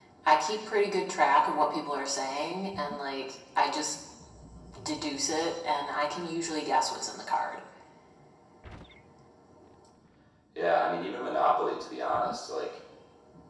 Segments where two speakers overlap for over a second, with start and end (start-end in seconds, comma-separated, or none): none